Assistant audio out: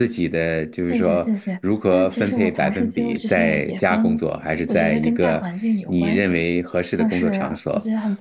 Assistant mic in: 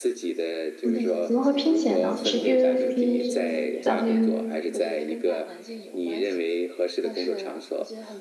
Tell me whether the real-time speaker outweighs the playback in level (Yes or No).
Yes